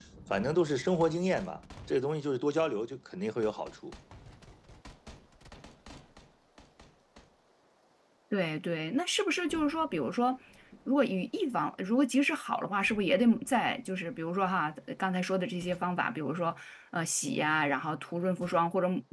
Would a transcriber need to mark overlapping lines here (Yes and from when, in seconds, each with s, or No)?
No